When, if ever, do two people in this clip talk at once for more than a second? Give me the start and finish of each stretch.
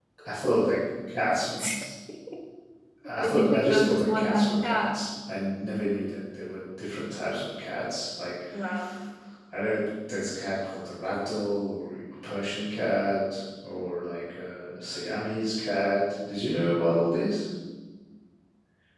3.2-5.0

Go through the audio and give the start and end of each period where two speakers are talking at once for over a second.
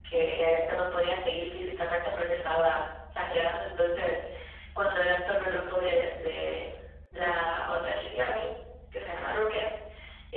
none

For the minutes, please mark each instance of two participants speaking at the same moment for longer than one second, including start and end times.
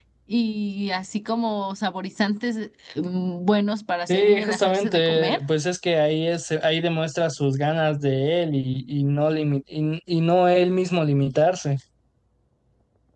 4.1-5.4

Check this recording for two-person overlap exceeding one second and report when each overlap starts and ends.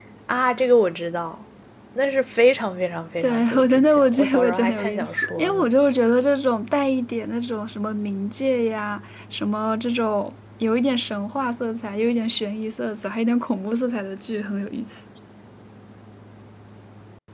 3.2-5.7

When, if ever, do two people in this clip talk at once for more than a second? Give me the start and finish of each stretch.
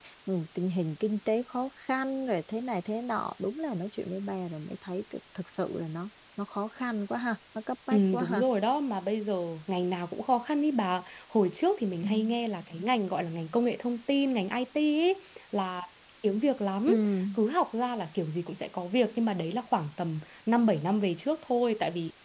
none

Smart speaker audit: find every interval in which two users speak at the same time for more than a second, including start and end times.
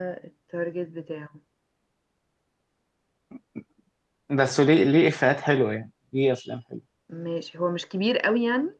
none

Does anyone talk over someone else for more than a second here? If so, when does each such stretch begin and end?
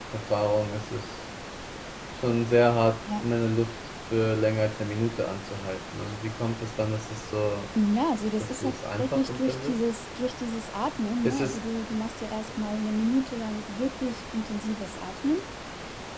8.4-9.8

